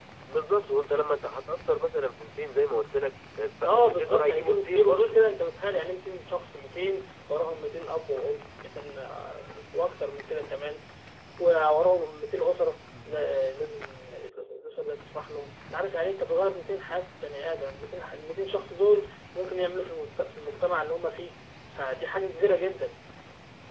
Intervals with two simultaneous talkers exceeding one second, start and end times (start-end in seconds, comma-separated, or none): 3.7-5.2